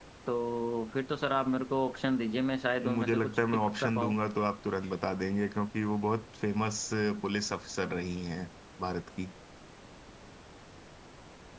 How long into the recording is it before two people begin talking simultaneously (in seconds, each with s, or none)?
2.8 s